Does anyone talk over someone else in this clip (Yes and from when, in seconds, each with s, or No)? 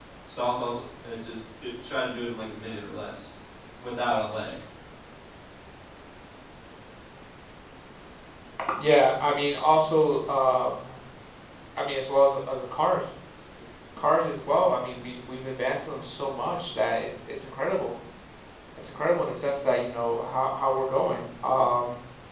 No